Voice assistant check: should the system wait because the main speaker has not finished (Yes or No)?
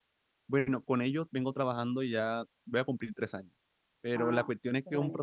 Yes